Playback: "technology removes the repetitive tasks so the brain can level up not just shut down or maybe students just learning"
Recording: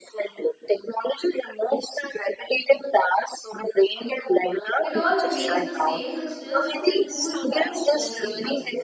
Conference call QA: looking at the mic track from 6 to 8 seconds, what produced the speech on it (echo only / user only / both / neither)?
both